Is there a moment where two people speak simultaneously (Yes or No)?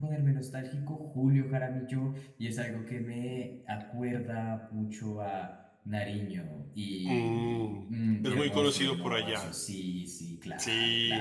Yes